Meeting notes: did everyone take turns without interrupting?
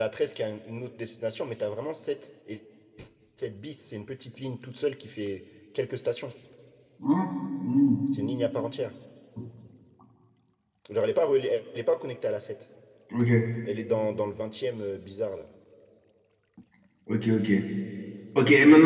Yes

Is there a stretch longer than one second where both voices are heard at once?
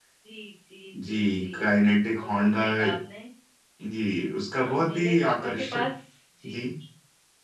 Yes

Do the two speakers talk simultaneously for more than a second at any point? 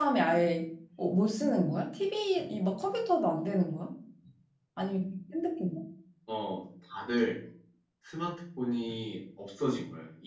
No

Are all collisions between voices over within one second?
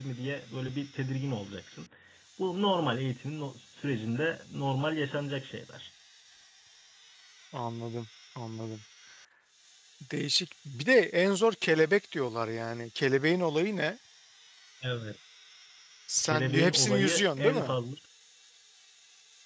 No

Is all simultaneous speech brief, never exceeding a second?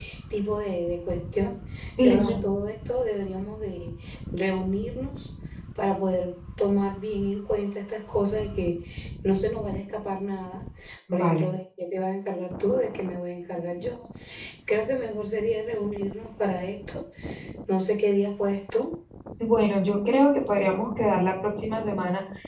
Yes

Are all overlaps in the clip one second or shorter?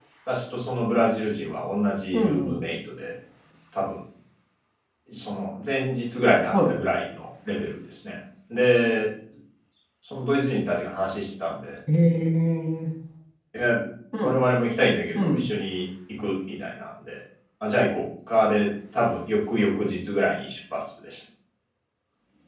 Yes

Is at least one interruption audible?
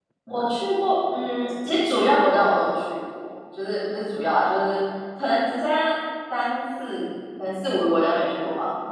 No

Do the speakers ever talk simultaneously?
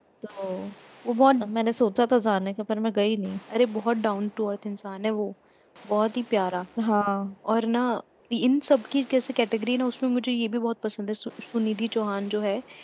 No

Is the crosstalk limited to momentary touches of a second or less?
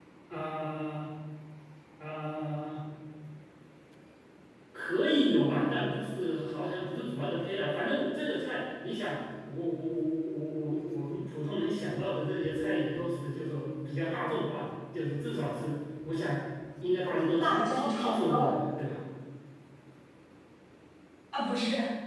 No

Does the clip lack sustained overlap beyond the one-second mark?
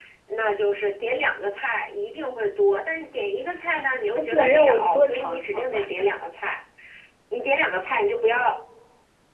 No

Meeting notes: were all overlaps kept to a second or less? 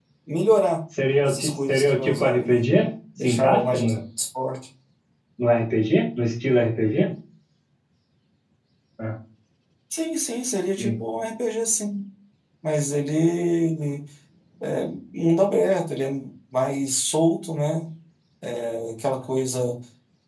No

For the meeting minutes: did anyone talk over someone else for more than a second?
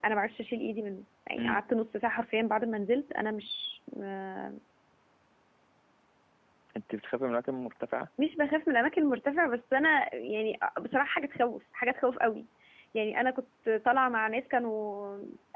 No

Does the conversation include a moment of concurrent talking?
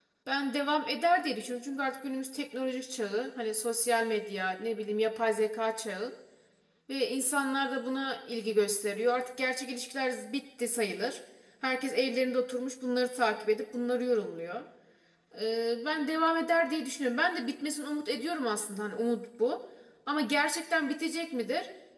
No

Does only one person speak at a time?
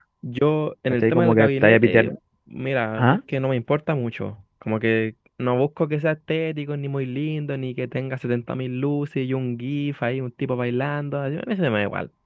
No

